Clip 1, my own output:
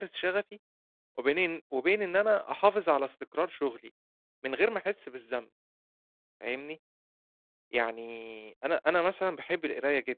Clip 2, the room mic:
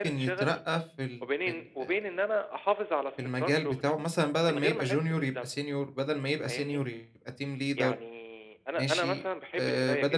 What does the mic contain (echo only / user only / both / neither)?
both